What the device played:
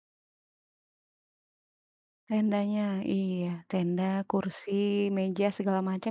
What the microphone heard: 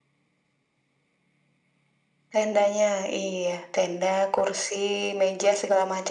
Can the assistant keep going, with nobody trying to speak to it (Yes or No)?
Yes